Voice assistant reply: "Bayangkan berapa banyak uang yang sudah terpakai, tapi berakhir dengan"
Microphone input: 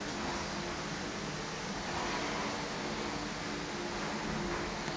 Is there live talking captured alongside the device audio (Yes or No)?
No